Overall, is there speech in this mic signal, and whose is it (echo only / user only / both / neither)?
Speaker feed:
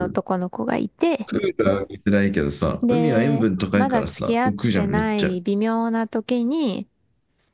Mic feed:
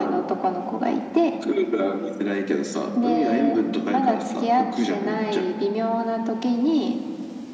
echo only